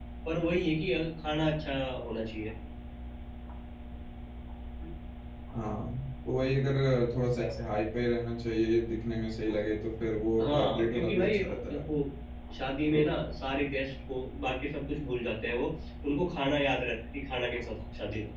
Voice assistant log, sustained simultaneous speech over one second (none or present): present